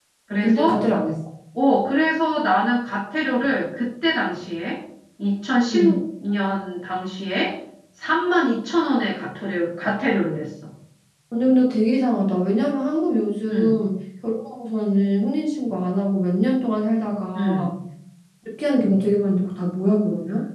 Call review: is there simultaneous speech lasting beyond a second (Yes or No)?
No